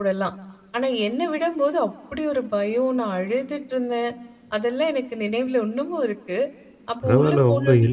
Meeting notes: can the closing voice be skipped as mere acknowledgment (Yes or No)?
No